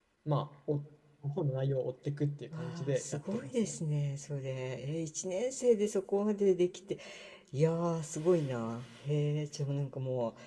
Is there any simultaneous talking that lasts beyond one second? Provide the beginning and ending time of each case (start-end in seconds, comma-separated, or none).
2.6-3.8